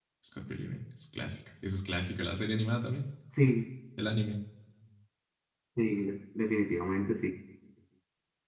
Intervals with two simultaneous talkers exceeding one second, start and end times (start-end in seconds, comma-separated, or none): none